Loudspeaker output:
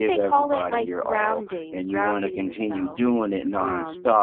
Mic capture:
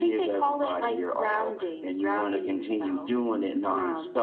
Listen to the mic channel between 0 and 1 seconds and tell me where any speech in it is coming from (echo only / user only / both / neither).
echo only